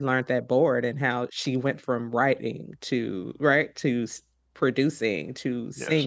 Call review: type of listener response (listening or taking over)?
listening